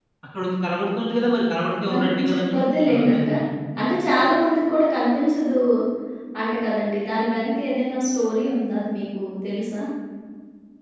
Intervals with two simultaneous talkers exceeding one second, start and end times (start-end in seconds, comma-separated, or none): 1.9-3.4